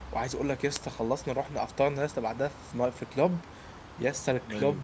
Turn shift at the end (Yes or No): No